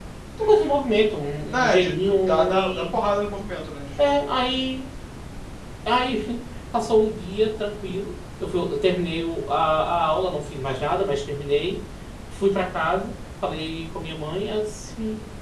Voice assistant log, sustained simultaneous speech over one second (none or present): present